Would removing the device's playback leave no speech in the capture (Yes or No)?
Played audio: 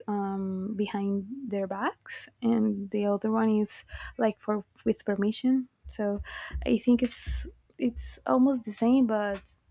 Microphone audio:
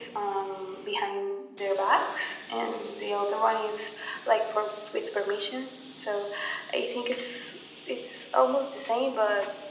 Yes